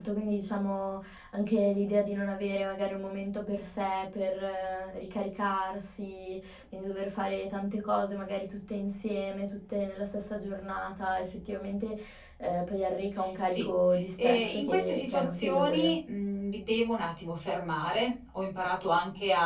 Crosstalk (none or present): present